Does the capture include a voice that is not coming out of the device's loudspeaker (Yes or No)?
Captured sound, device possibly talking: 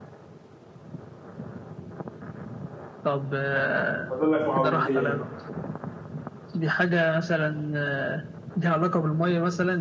Yes